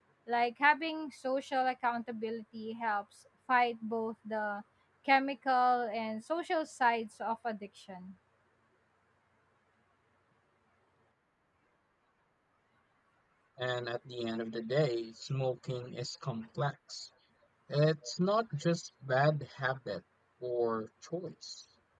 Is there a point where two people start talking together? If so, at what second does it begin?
none

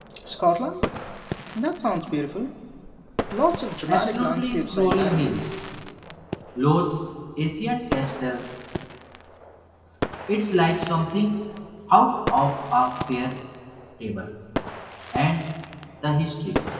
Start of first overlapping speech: 3.9 s

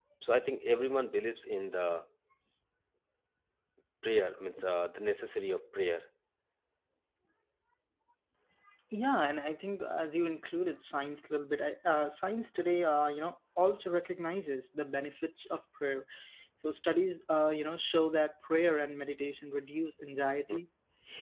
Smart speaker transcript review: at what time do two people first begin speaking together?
none

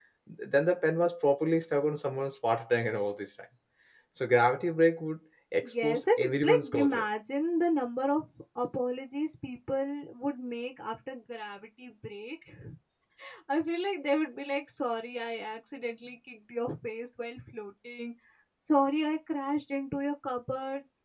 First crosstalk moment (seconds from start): 5.6 s

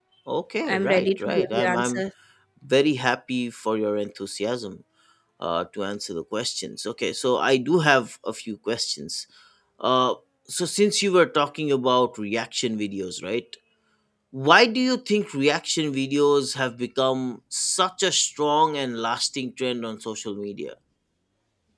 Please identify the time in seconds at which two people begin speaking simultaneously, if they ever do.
0.7 s

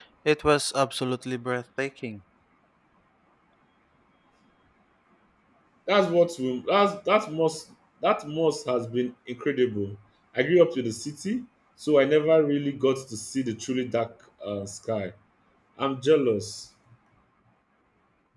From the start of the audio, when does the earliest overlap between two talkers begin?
none

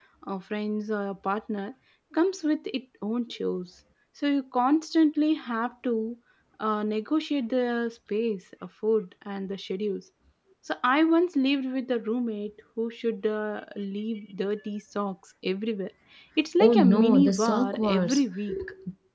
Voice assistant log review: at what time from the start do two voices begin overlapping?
16.6 s

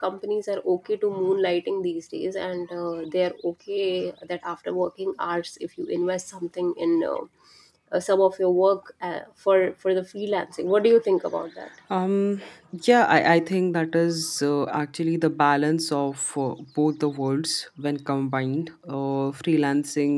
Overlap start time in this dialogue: none

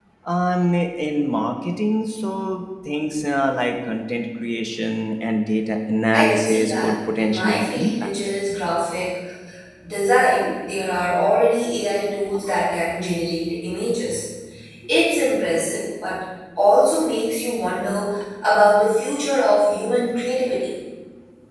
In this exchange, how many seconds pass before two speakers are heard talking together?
6.1 s

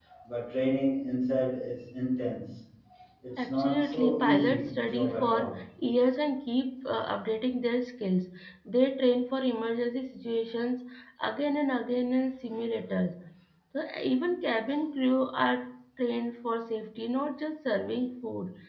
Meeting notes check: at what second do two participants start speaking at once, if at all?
3.4 s

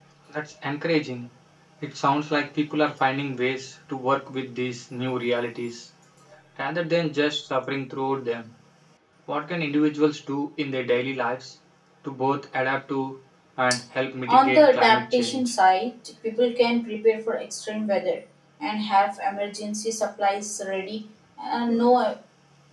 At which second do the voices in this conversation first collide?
14.3 s

